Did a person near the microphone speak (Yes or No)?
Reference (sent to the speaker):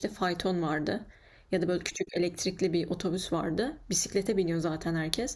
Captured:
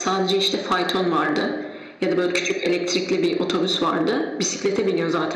No